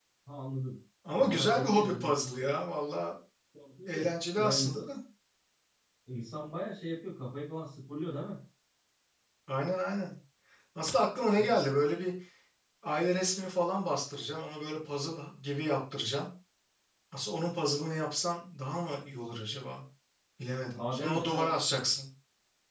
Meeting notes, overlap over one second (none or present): present